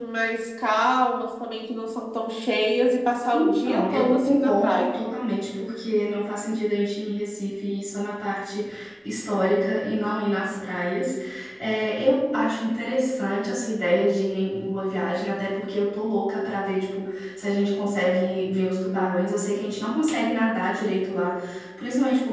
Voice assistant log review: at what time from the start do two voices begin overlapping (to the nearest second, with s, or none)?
3 s